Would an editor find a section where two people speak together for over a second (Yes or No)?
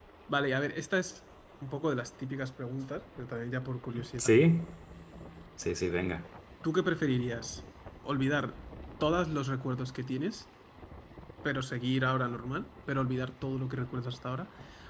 No